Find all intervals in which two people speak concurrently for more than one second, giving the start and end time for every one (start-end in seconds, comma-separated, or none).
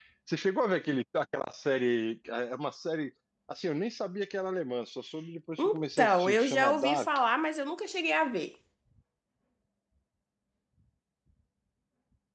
5.6-7.1